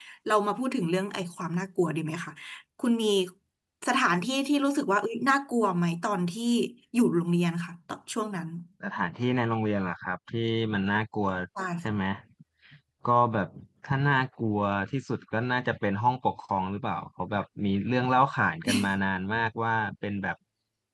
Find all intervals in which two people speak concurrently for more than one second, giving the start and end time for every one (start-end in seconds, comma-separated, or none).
none